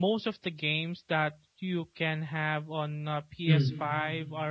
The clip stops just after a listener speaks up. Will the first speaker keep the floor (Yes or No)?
Yes